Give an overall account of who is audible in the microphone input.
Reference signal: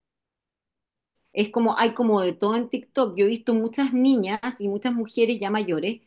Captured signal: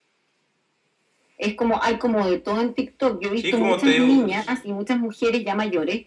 both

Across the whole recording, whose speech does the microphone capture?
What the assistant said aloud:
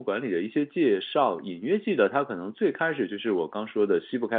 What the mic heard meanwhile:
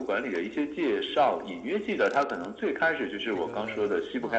both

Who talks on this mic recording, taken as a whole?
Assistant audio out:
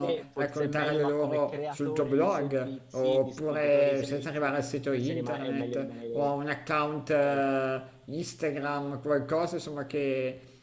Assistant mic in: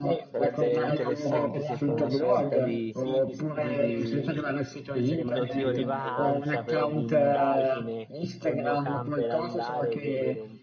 both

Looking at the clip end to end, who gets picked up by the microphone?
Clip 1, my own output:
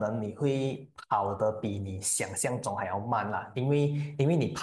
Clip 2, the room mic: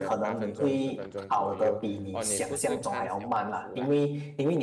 both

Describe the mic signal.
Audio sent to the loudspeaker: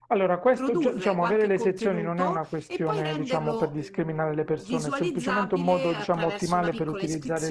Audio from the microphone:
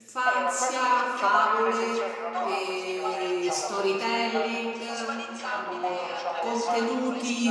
both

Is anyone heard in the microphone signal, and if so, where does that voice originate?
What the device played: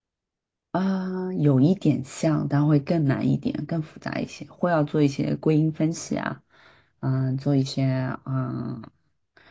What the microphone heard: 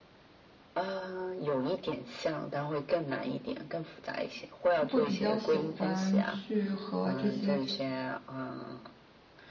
both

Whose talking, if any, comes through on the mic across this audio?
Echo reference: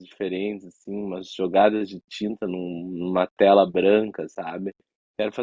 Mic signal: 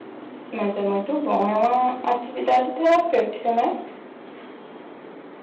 user only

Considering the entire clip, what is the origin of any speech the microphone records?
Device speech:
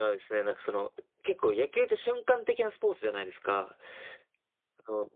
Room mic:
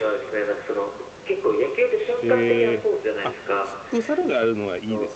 both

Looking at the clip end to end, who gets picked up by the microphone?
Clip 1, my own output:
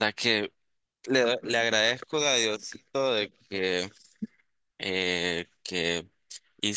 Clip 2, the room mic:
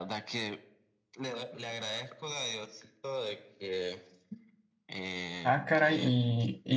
both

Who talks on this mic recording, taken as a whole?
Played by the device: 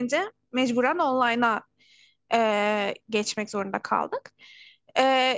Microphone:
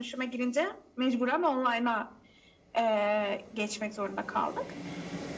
echo only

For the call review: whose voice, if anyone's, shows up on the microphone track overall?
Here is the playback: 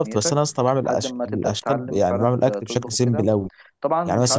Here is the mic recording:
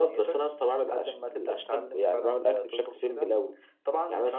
echo only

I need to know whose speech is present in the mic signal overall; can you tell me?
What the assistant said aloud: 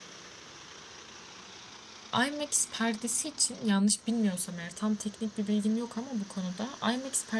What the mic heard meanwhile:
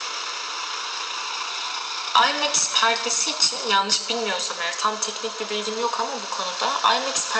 echo only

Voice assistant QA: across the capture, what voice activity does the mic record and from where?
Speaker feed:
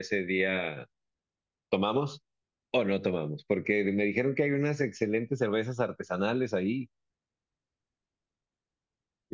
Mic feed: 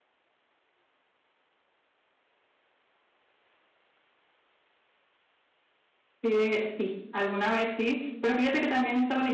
user only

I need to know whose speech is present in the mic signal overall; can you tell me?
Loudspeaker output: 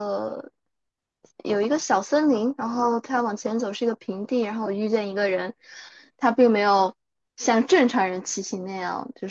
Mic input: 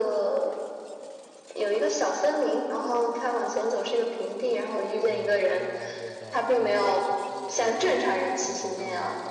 both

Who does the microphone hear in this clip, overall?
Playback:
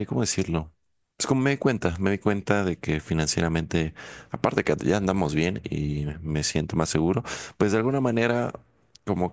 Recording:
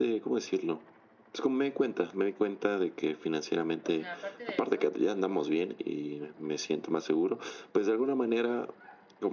both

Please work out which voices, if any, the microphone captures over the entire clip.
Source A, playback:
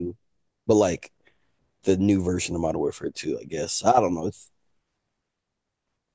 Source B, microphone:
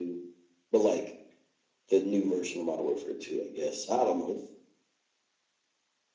echo only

